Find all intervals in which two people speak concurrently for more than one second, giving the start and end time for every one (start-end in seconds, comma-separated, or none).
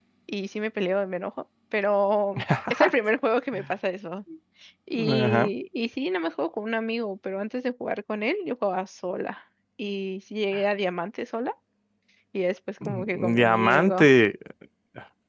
12.8-14.1